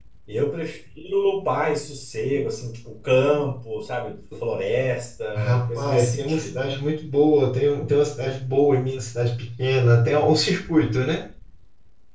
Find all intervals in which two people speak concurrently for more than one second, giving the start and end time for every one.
5.4-6.6

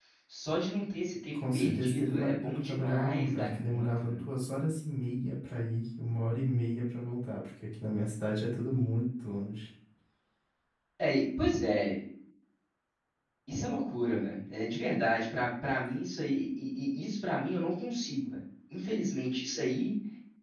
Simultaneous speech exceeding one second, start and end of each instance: 1.3-4.3

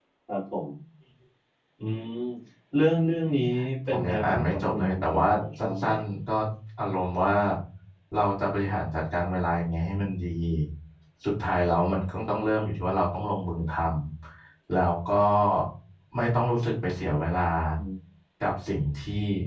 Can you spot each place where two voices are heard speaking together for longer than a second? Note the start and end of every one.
3.9-5.8

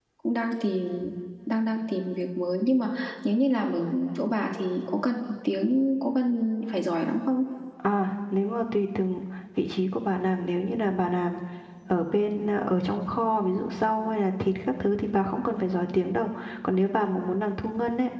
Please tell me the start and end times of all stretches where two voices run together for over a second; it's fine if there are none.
none

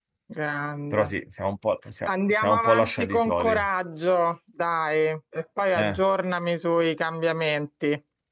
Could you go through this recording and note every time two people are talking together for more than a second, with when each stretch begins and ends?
2.1-3.5

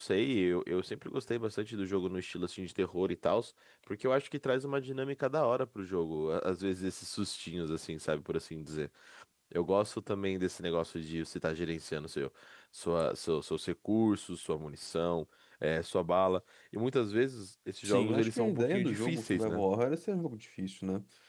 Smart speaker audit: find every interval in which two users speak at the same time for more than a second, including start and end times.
17.8-19.6

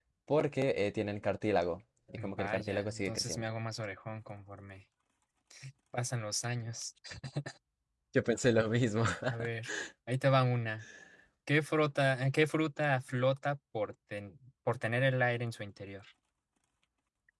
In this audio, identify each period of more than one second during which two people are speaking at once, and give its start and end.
2.2-3.5

